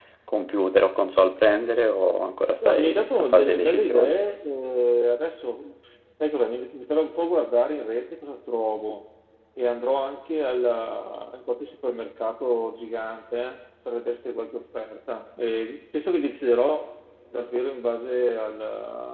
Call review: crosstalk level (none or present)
present